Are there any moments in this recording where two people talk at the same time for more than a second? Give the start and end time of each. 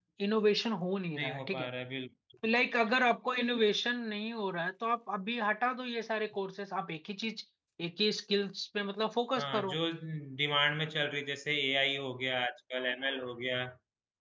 none

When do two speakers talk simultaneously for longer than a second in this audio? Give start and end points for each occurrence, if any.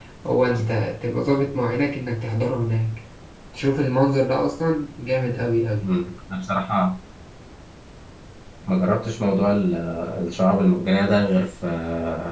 none

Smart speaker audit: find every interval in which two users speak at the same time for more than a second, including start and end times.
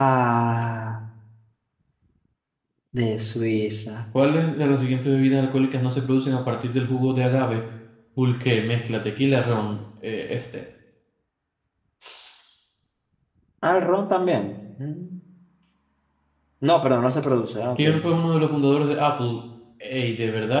none

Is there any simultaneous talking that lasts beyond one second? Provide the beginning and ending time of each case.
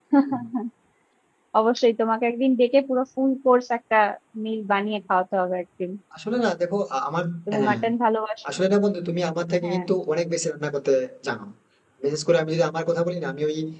none

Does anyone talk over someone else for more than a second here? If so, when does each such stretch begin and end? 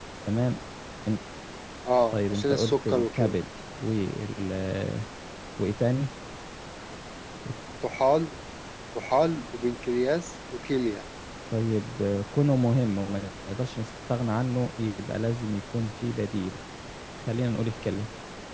2.1-3.3

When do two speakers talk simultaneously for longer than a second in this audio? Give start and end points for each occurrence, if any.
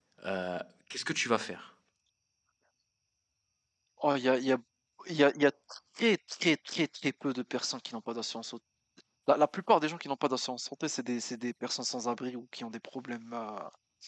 none

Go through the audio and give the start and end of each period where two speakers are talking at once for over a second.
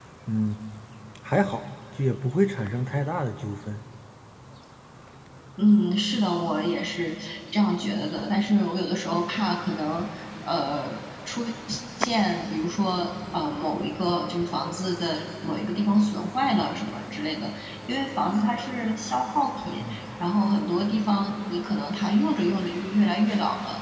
none

